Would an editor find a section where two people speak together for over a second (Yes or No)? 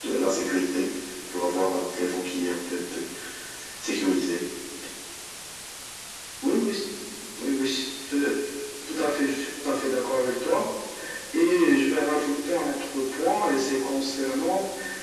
No